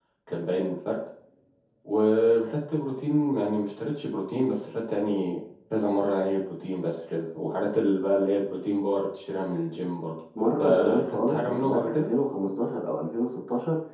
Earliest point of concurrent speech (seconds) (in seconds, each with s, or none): 10.6 s